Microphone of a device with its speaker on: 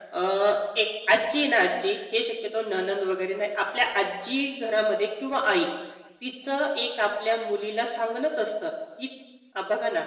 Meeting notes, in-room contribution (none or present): none